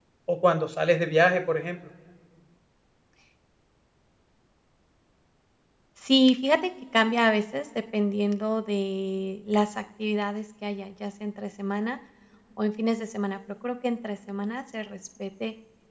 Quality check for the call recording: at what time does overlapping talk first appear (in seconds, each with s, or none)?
none